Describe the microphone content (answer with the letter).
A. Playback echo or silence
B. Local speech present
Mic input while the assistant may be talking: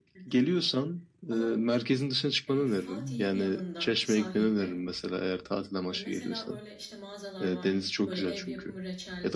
B